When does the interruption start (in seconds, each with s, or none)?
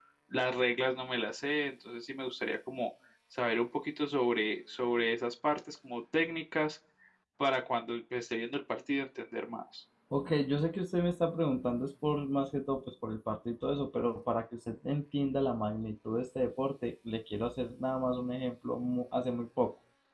none